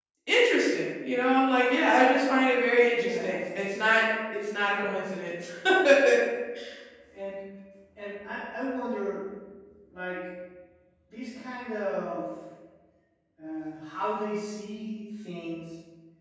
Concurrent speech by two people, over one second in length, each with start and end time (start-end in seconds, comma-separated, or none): none